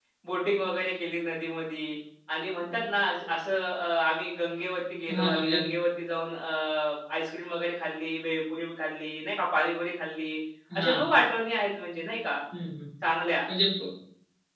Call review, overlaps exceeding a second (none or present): none